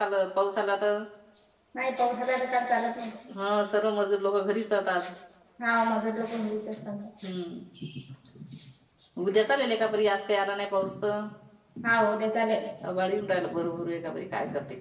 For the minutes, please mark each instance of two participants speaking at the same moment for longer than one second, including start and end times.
none

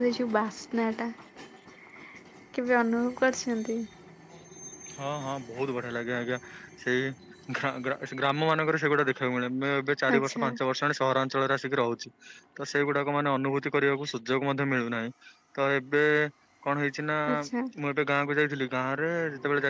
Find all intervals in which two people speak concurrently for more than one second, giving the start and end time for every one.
none

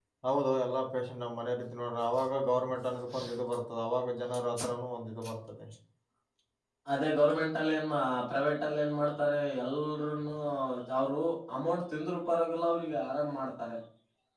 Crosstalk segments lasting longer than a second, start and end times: none

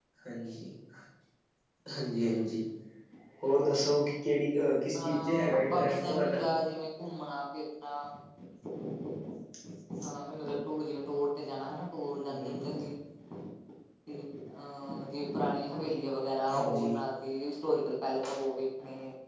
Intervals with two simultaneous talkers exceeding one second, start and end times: 5.0-6.4

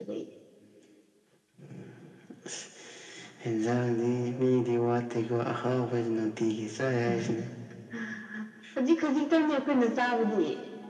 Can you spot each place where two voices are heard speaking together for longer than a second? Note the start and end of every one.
none

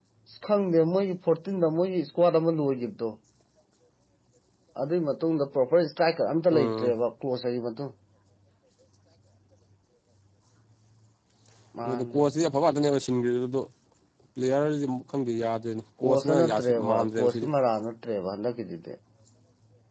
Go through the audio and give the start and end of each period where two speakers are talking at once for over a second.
16.0-17.5

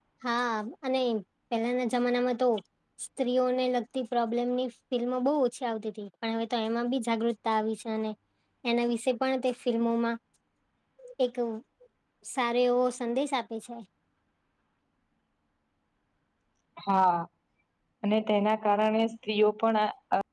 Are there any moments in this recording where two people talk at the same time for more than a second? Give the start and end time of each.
none

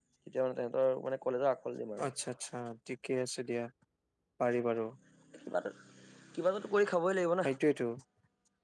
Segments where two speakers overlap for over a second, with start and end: none

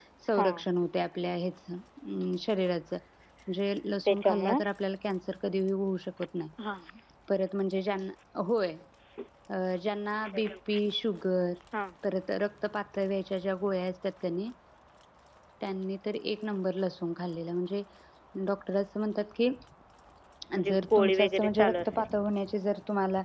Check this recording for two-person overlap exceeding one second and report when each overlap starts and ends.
20.6-22.0

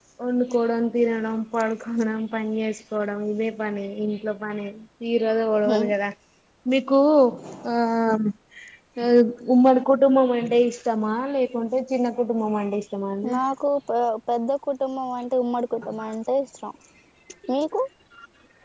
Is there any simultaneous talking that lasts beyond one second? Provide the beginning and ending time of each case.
none

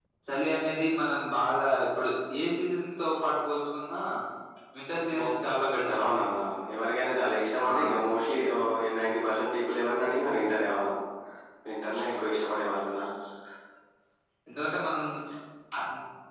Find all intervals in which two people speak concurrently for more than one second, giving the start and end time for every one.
none

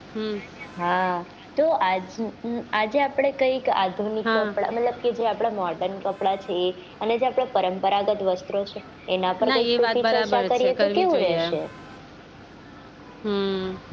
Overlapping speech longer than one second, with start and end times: 9.5-11.6

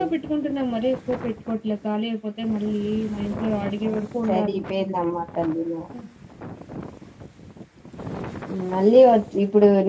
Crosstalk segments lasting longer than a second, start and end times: none

